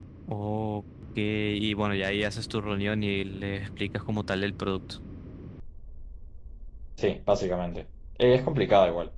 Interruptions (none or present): none